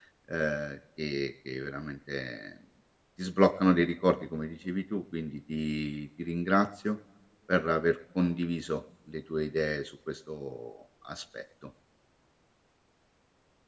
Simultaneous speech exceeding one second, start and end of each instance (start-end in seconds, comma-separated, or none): none